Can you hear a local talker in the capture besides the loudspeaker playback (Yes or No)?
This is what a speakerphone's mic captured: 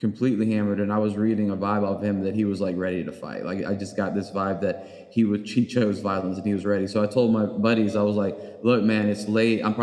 Yes